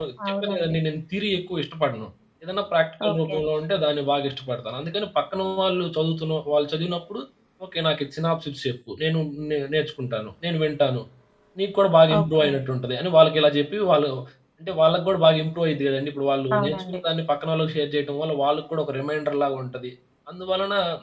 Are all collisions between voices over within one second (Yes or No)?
Yes